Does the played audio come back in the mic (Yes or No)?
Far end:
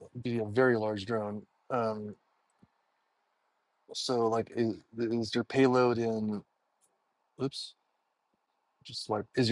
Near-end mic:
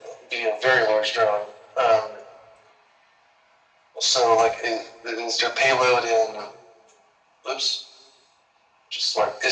Yes